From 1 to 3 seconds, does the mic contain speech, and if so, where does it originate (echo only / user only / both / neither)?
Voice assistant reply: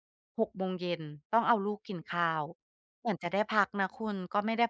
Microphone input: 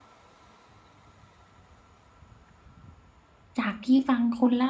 neither